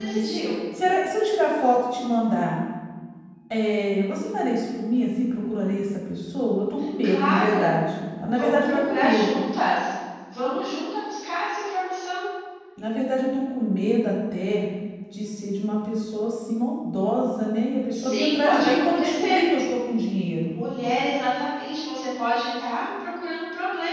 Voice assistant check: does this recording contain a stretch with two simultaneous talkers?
Yes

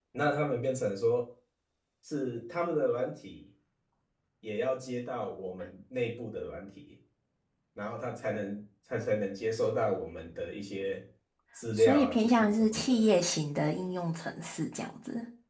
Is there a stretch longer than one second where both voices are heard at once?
Yes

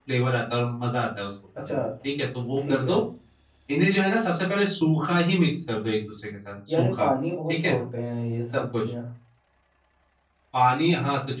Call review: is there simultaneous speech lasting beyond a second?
No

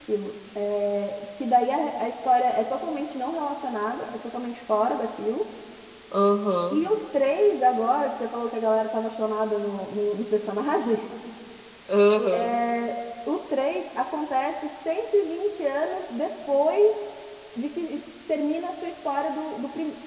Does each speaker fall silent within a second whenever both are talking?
Yes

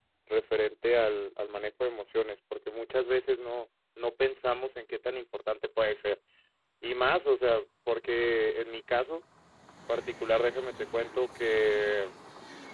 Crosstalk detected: No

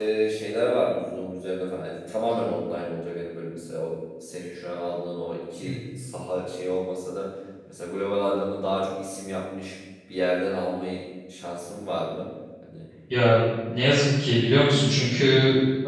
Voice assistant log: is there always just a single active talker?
Yes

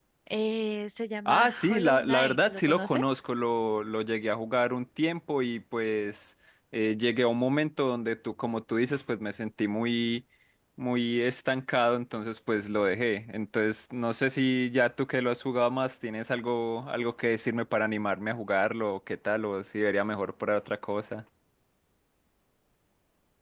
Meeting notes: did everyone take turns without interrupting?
No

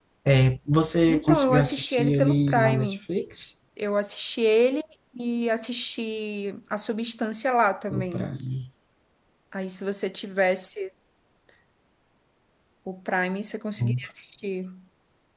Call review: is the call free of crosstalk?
No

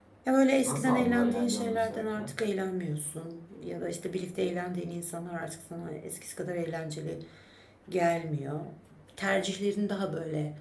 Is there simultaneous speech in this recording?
Yes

